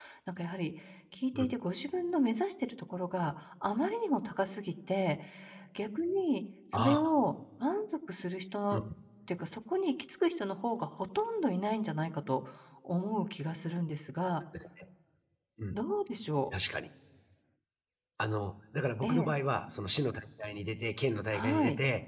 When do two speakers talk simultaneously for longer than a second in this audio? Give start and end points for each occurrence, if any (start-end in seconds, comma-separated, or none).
none